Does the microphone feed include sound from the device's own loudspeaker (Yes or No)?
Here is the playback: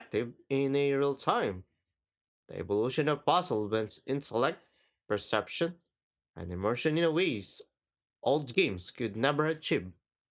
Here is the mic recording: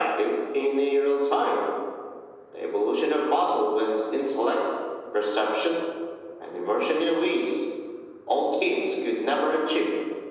Yes